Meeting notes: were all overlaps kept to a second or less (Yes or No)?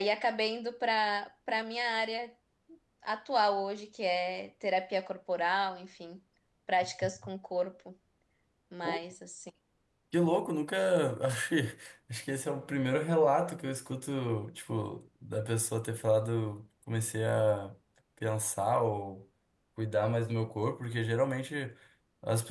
Yes